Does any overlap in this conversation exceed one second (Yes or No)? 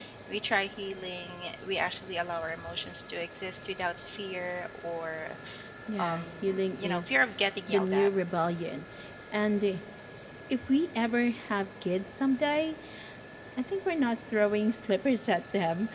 Yes